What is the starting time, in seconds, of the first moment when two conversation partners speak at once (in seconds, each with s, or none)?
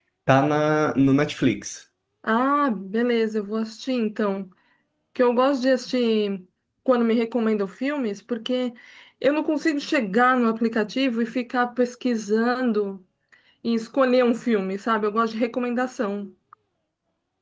none